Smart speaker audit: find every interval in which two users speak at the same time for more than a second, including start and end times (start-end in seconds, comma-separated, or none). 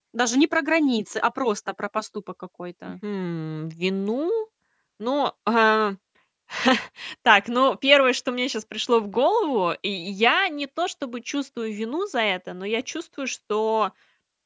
none